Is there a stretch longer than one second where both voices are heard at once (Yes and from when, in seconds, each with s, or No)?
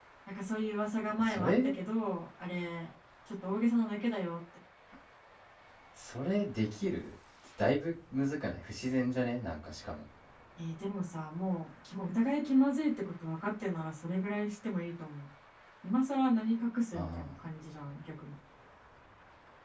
No